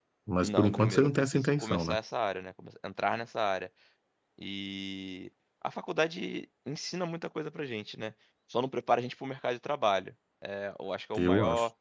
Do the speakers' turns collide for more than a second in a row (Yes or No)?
Yes